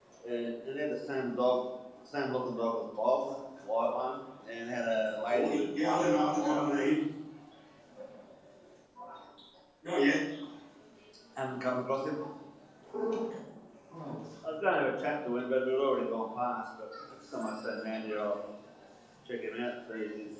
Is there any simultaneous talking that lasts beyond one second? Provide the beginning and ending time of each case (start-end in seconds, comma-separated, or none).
5.3-6.9